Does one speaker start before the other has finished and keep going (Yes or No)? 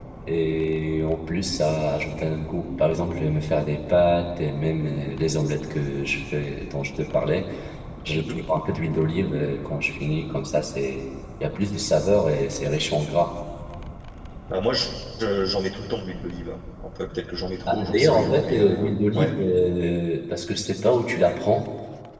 Yes